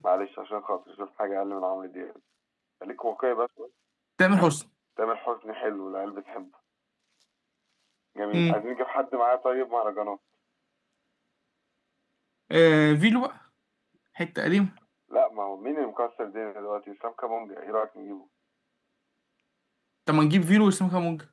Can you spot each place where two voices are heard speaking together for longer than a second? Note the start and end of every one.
none

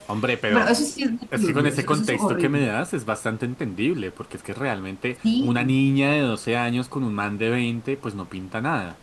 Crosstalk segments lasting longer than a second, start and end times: 1.4-2.6

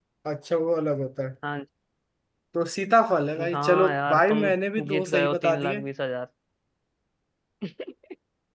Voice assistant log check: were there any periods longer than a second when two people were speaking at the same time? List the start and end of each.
3.5-5.8

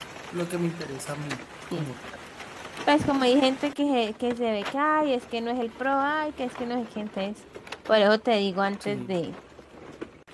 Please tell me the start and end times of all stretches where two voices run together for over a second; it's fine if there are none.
none

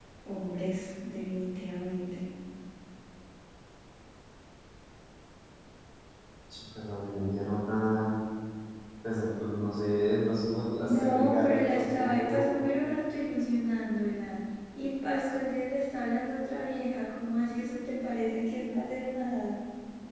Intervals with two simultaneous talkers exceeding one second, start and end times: 10.8-12.4

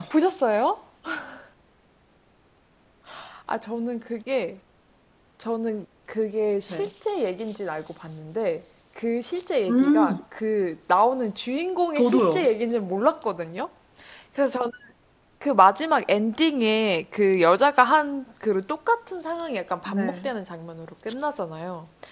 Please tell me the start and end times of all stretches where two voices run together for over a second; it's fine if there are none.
none

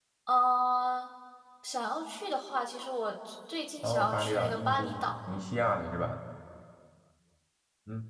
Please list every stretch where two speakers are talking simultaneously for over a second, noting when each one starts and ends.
3.8-5.2

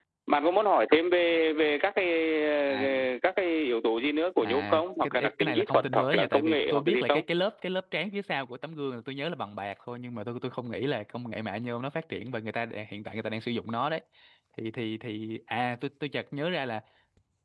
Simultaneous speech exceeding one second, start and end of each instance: 4.4-7.2

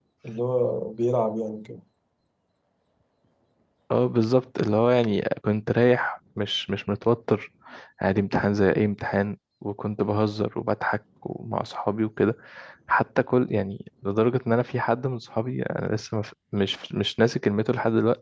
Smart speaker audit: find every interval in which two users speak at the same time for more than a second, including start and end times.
none

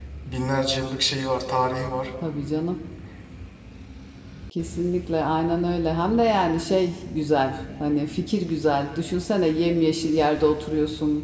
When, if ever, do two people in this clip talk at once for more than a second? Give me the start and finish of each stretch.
none

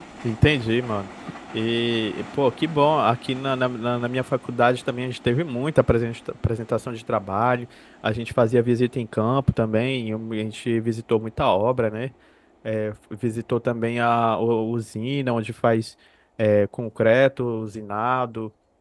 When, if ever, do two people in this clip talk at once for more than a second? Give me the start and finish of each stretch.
none

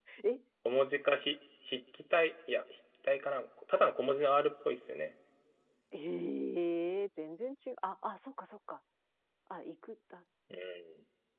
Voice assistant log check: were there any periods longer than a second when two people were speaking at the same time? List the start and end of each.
none

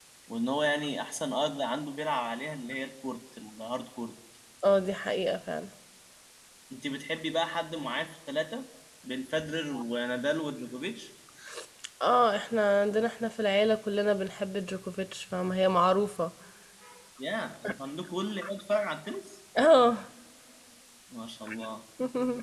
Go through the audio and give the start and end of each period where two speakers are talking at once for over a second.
none

